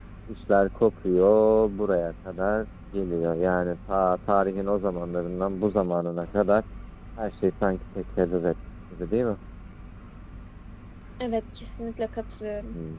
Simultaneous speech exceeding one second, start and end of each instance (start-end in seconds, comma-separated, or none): none